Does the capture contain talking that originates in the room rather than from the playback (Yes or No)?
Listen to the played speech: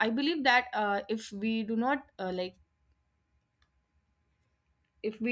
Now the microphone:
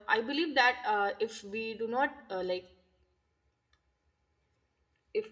No